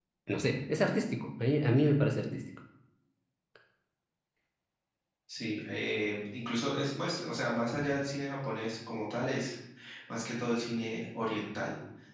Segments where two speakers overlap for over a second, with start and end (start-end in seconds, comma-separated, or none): none